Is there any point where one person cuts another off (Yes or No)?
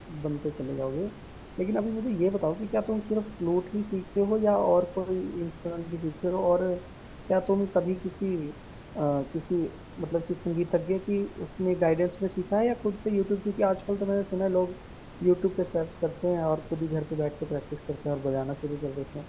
No